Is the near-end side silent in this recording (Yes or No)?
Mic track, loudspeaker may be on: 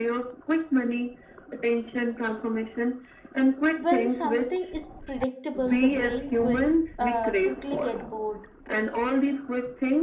No